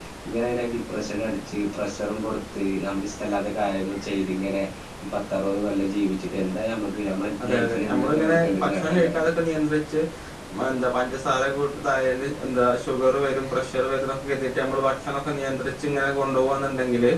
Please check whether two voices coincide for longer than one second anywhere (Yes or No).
Yes